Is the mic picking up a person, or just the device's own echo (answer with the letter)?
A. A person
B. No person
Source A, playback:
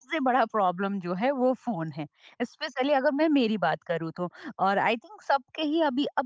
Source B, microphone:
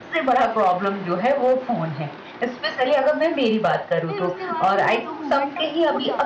A